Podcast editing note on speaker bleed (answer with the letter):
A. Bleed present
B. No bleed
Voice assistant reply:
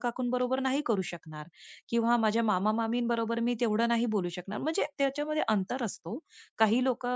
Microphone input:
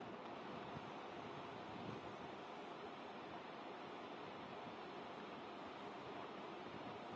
B